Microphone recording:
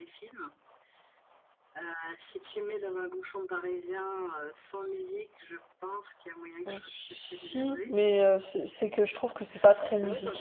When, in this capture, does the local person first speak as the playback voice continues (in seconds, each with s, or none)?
6.7 s